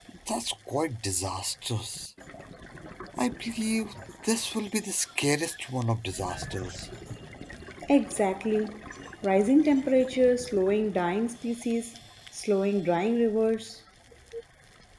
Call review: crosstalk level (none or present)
none